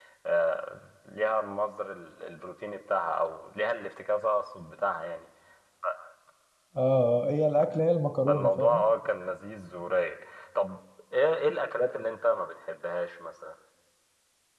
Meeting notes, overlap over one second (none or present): none